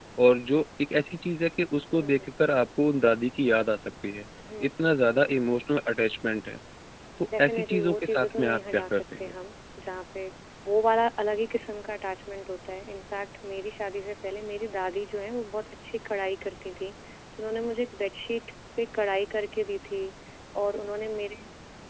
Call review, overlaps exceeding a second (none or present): present